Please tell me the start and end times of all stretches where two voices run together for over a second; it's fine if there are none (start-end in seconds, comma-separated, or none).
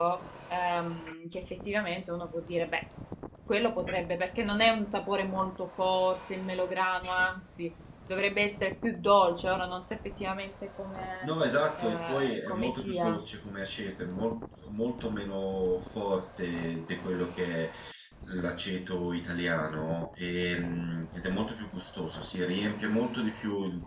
11.8-13.2